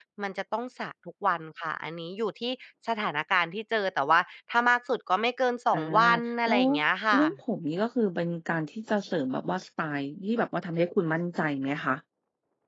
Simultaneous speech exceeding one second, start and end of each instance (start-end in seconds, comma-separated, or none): none